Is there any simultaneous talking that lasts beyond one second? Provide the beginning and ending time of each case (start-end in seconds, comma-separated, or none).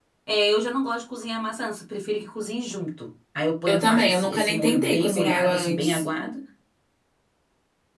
3.7-6.0